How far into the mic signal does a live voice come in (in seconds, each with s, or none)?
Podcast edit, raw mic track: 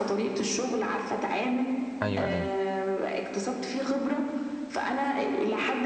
2.0 s